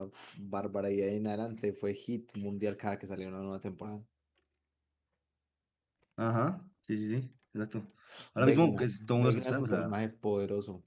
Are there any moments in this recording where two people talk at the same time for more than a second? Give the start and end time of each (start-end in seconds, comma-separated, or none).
8.4-9.9